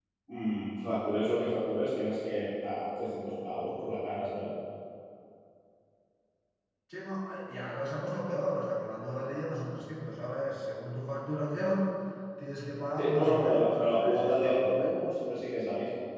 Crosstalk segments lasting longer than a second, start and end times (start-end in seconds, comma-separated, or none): 13.0-15.0